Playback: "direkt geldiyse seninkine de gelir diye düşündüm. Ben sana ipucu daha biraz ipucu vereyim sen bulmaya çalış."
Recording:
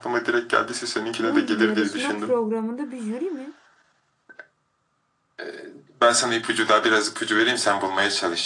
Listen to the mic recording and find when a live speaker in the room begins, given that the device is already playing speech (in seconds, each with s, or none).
1.2 s